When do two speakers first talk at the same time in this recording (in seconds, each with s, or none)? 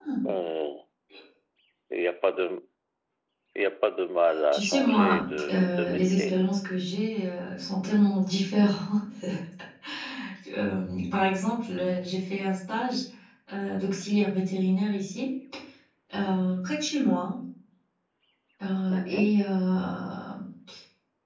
4.5 s